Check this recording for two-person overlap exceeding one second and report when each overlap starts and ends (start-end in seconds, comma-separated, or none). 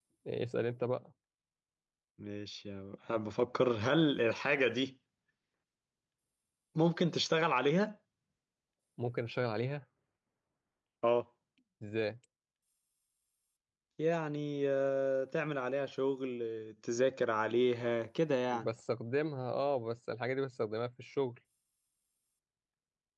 none